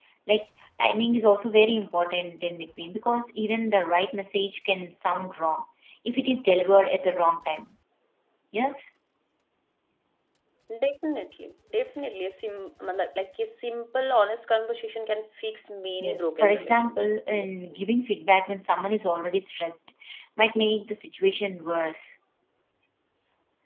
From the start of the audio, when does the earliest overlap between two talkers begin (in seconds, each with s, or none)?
16.0 s